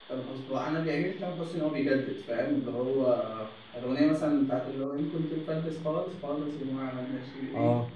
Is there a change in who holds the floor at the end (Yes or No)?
Yes